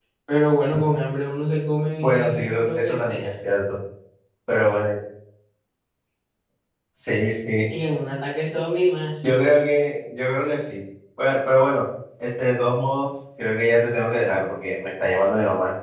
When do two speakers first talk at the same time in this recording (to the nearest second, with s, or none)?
2 s